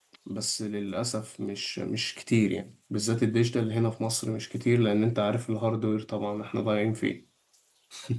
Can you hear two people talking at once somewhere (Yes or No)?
No